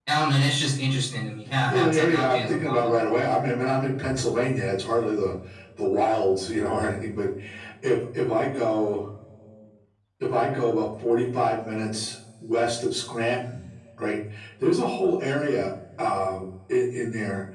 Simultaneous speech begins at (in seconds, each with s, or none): 1.7 s